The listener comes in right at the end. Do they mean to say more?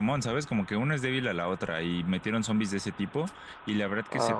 No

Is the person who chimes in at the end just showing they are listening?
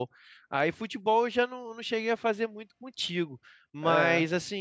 Yes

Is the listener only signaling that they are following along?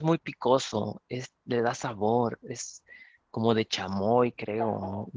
No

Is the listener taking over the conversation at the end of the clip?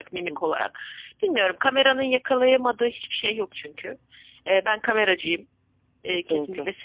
Yes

